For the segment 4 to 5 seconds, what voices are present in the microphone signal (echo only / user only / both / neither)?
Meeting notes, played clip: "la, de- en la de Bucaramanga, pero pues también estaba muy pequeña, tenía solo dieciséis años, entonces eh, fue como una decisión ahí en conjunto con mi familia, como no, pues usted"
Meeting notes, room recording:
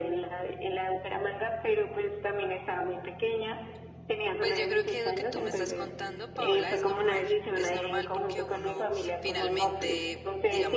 both